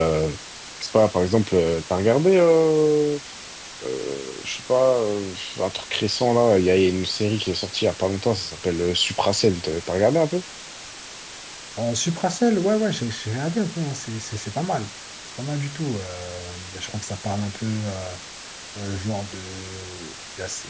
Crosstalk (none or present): none